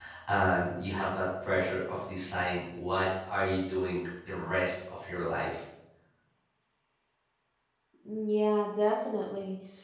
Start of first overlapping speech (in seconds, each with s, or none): none